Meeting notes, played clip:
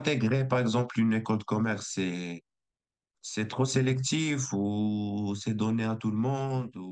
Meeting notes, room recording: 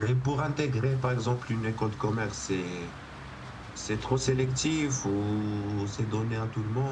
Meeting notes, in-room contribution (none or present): none